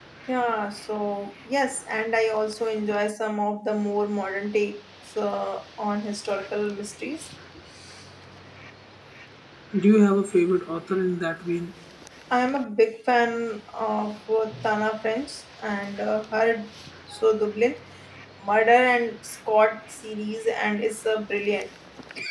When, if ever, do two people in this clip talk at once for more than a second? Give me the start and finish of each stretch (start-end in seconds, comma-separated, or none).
none